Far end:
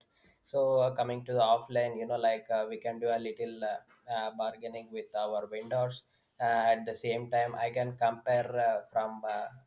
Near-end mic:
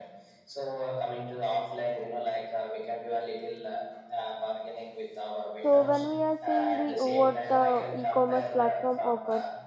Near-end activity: present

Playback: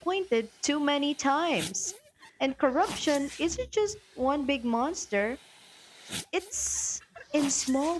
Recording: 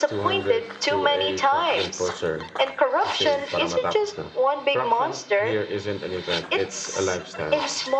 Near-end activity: present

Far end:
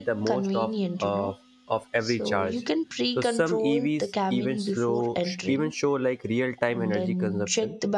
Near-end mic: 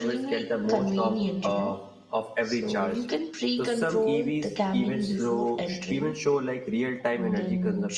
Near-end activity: none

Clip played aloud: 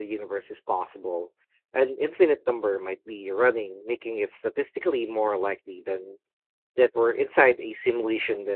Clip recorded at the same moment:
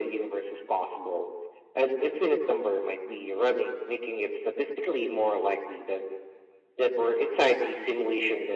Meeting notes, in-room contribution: none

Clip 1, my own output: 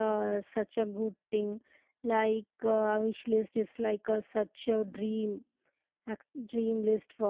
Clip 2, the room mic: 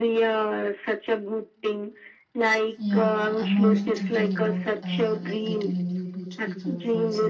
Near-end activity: present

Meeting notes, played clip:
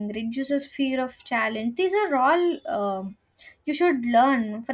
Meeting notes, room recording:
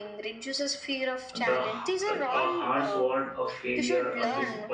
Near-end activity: present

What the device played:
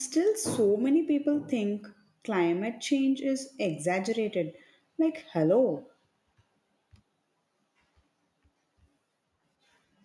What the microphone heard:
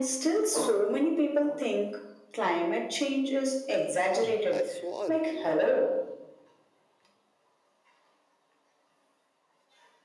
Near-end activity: present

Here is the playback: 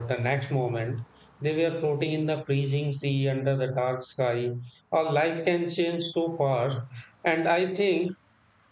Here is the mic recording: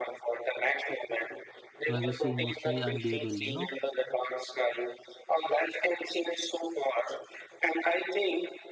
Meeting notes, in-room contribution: present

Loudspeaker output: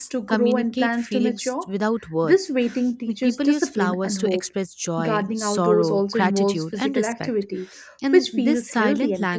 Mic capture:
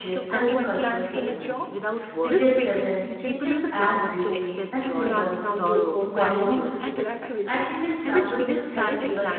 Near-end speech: present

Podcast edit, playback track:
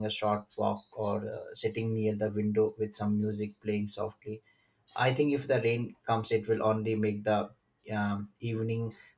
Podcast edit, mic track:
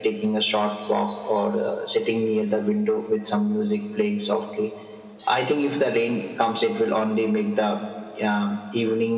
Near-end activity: none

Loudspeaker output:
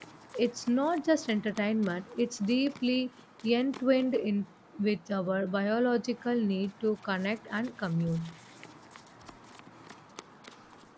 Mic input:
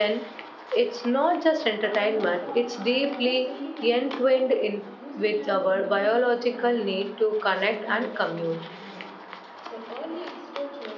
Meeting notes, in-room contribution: present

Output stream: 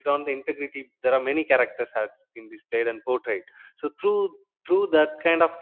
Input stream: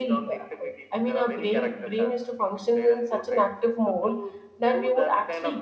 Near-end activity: present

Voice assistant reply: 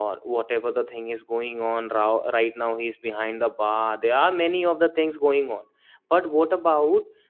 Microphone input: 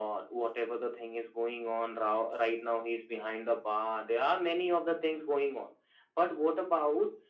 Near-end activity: none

